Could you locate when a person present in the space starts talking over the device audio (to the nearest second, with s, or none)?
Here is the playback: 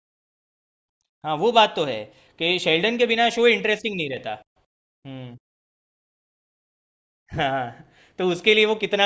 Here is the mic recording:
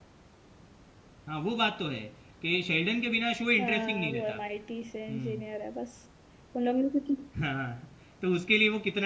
4 s